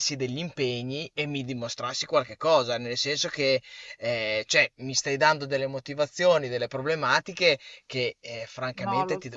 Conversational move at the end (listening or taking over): taking over